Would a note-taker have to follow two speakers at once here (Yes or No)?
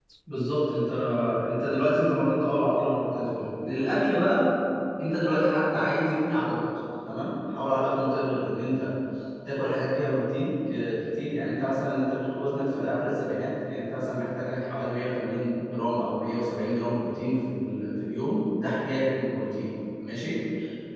No